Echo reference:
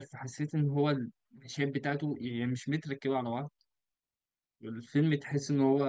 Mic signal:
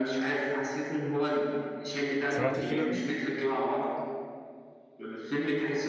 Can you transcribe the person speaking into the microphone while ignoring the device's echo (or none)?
سمعت الفيل الازرق